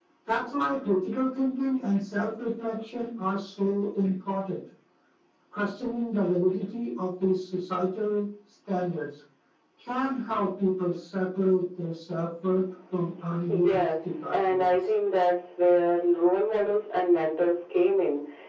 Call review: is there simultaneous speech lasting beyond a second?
Yes, from 13.5 s

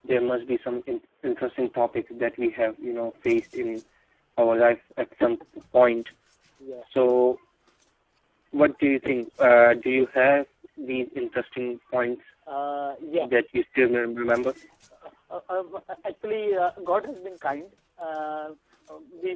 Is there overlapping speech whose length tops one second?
No

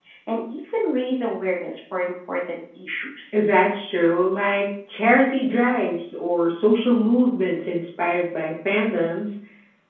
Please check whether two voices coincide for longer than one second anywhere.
No

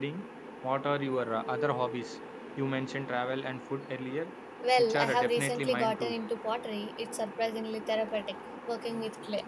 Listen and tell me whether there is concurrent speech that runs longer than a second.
Yes, from 4.8 s

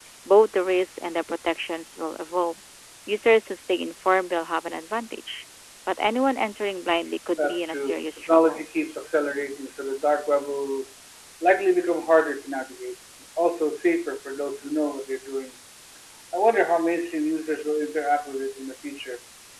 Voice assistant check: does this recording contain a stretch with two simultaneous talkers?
Yes, from 7.4 s

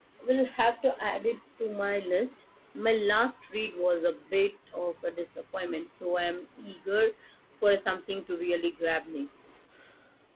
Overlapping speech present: No

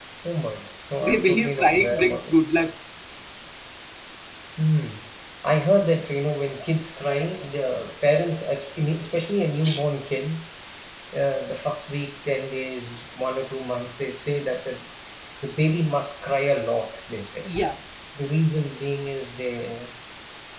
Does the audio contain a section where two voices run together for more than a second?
Yes, from 1.0 s

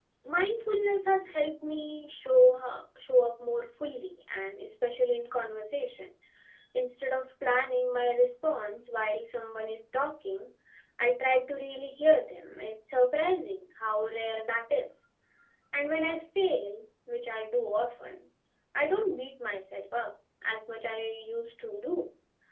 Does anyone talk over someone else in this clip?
No

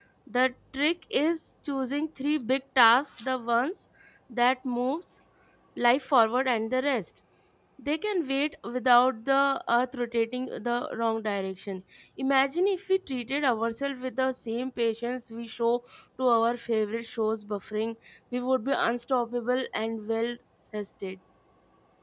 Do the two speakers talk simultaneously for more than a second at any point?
No

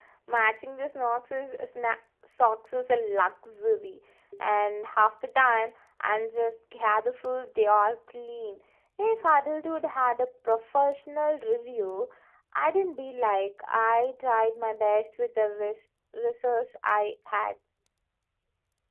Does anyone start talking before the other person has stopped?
No

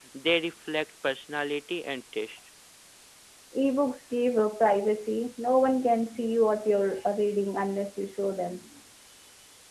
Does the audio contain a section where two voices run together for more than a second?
No

